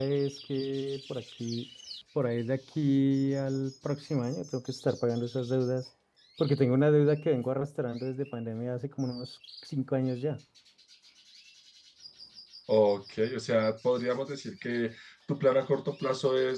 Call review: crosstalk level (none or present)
none